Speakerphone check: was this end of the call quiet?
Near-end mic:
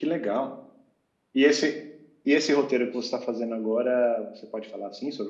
No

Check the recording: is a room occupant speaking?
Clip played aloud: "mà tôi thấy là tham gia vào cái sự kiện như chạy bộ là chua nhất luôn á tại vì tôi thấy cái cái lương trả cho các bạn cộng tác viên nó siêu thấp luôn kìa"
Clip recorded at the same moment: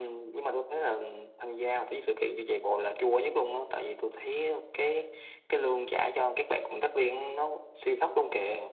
No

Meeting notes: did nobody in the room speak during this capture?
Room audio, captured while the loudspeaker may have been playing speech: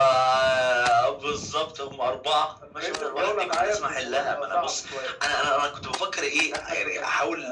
Yes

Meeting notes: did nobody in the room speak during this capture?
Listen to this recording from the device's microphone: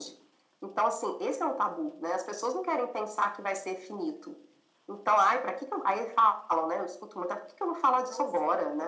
No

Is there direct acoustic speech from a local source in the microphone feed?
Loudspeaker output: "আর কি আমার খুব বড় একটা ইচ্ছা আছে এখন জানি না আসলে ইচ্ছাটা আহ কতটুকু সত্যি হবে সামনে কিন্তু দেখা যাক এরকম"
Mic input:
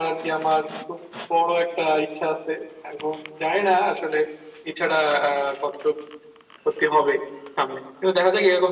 No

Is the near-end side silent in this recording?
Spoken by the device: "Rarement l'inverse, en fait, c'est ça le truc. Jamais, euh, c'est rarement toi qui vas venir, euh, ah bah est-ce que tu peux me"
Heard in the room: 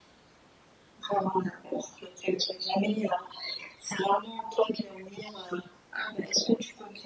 Yes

